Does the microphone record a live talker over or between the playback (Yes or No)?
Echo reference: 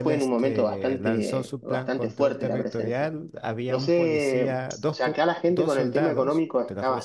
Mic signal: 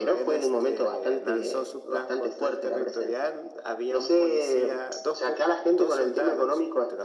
No